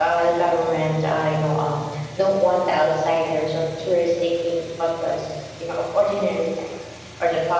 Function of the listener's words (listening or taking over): listening